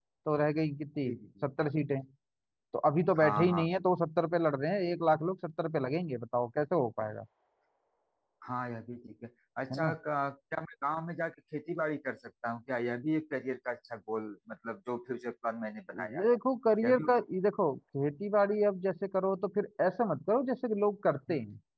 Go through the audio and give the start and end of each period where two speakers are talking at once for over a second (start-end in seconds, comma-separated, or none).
none